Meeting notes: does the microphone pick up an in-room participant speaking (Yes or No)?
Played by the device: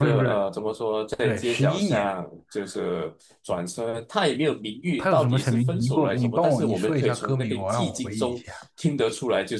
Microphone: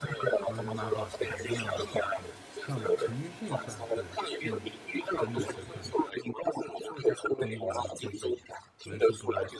Yes